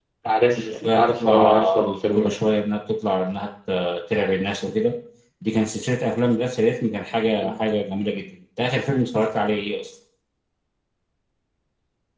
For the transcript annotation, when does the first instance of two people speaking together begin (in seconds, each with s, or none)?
0.6 s